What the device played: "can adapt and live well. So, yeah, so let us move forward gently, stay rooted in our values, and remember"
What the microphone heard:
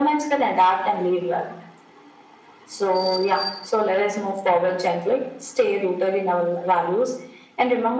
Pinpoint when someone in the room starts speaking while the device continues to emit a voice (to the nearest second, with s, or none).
none